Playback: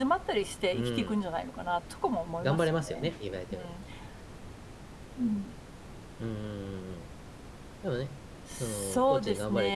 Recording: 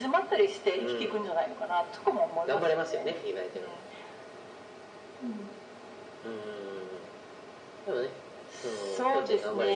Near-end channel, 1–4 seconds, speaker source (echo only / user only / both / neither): echo only